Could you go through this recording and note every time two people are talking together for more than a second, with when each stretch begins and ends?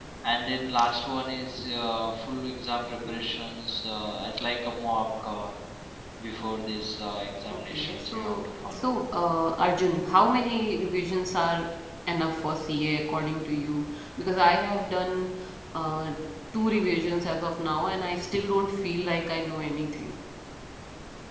7.5-8.9

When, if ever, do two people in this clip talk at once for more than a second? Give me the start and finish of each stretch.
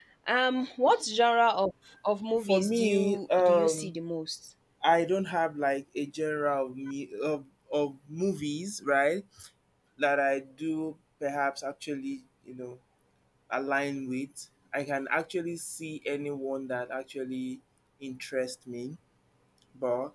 2.4-3.9

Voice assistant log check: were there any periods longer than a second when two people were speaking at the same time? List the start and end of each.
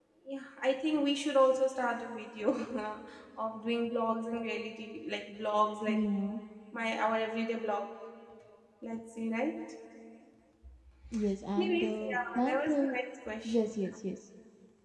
11.6-13.0

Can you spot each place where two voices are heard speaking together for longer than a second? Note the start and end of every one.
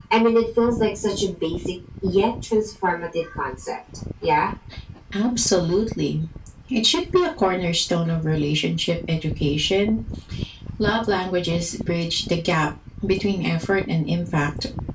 none

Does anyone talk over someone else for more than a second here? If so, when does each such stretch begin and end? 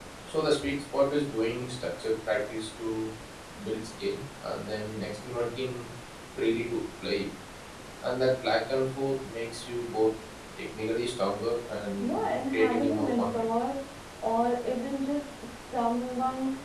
12.0-13.3

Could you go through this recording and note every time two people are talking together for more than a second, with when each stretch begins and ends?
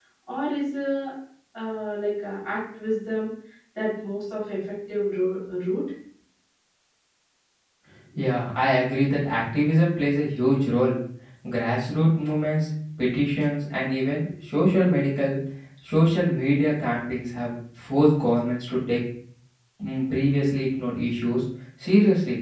none

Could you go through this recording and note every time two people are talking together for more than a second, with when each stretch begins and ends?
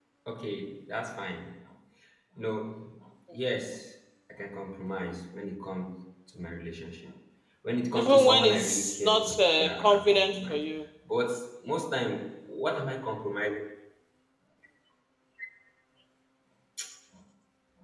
7.9-10.6

